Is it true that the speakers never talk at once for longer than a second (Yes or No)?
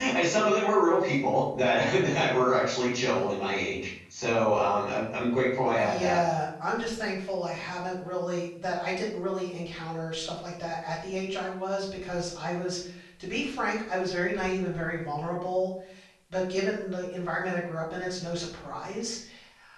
Yes